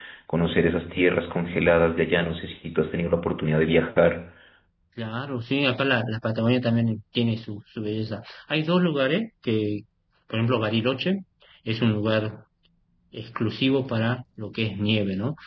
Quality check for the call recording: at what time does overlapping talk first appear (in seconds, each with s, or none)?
none